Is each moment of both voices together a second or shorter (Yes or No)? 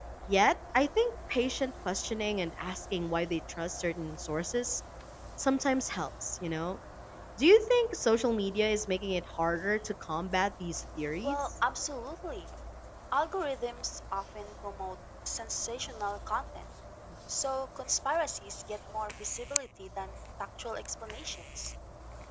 Yes